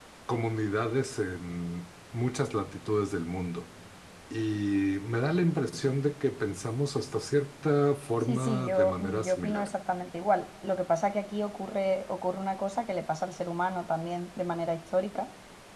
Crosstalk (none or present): present